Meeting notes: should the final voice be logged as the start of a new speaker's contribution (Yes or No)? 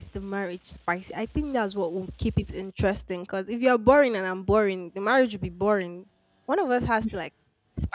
No